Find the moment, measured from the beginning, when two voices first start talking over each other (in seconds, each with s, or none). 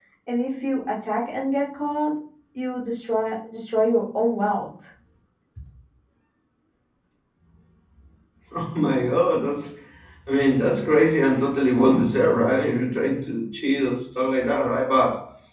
none